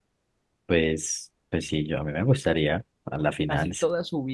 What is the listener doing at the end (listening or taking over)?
taking over